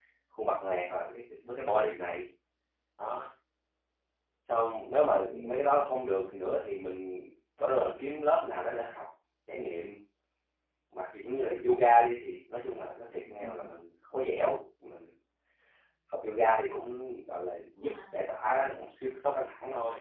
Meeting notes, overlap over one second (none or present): none